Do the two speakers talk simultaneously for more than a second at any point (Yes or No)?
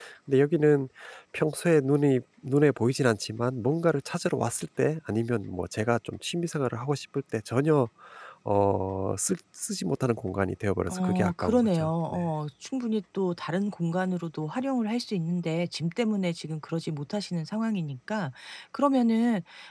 Yes